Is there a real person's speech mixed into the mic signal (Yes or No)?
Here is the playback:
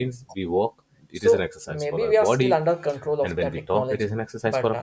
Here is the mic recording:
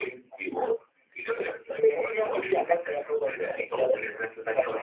No